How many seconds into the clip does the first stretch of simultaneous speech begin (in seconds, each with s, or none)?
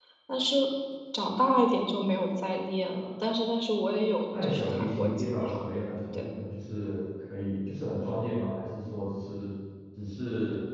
4.3 s